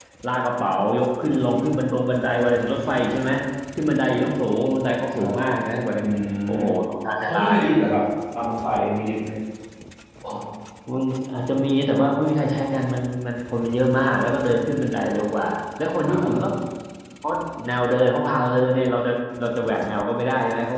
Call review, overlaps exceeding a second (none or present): none